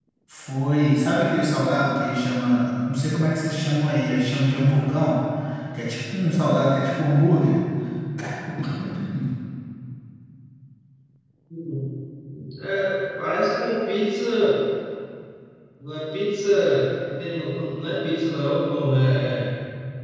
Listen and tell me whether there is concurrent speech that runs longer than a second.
No

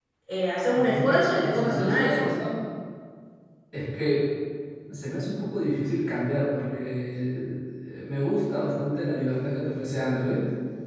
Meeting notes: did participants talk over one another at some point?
Yes, from 0.7 s

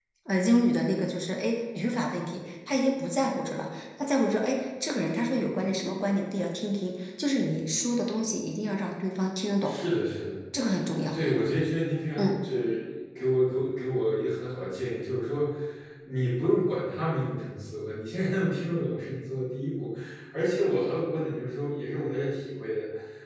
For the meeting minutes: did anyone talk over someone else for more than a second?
No

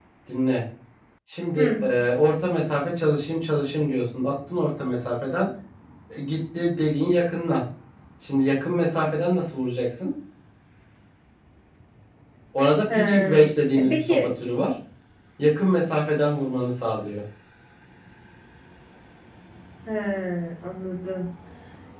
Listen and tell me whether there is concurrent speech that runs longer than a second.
No

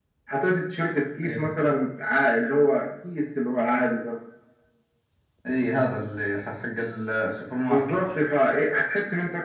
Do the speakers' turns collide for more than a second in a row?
No

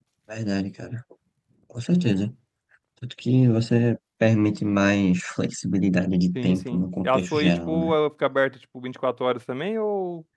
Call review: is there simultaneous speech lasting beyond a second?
Yes, from 6.3 s

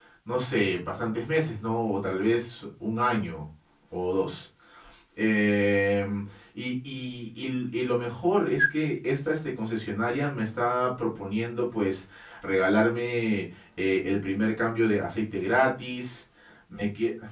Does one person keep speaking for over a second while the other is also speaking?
No

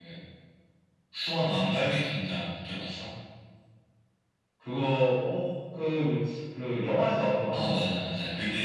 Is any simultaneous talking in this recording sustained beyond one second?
No

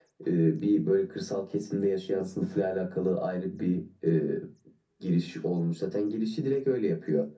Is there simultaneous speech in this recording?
No

